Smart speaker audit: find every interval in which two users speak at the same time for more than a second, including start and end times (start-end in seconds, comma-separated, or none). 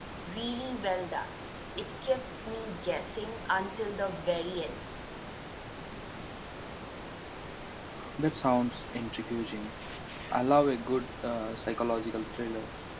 none